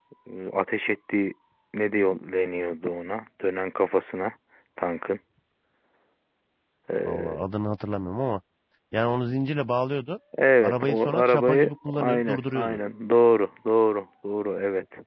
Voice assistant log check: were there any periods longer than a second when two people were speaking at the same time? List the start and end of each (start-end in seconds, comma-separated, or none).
10.6-12.8